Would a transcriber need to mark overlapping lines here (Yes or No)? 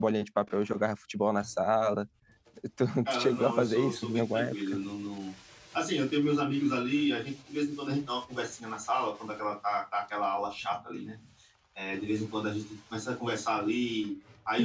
Yes